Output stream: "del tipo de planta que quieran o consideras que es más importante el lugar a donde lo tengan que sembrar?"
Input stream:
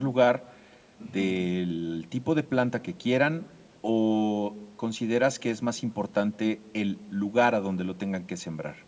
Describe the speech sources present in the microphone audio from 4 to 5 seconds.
echo only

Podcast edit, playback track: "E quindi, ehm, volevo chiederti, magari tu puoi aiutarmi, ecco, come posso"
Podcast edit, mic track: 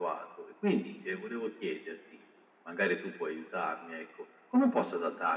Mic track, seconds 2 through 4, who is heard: echo only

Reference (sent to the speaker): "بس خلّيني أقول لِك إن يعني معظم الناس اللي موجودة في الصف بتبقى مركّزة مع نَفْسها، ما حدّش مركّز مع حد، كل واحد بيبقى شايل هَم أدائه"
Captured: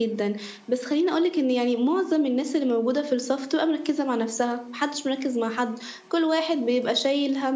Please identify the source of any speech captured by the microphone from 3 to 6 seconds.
echo only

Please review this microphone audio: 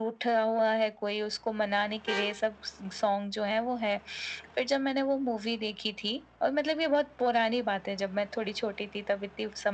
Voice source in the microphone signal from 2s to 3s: echo only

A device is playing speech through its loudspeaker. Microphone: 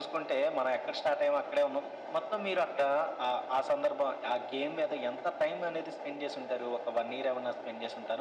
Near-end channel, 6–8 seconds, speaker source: echo only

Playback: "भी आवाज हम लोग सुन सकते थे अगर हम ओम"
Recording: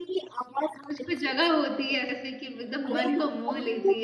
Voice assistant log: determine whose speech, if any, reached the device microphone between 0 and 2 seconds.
both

